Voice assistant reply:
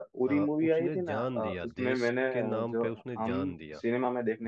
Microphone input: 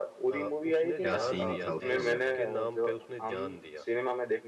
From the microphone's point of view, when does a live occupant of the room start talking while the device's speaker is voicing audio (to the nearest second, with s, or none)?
1 s